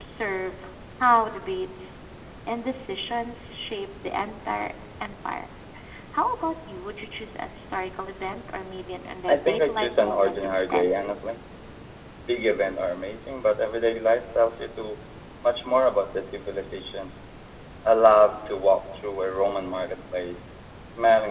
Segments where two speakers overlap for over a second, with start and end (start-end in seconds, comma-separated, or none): 9.3-10.8